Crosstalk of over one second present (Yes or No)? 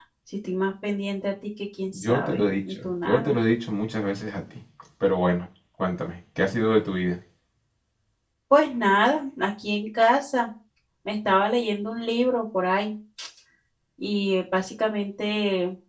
Yes